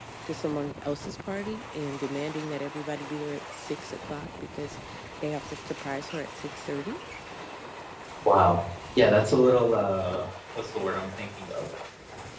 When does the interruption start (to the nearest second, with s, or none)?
none